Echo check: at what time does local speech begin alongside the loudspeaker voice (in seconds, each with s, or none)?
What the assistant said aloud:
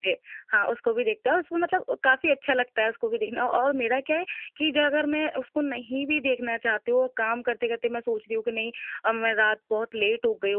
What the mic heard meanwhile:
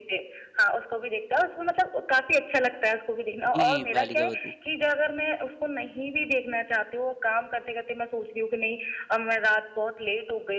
3.5 s